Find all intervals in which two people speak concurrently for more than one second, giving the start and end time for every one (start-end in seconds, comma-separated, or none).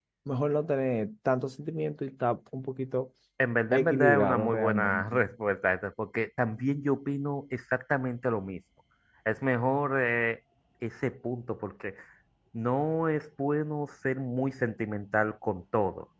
3.7-5.2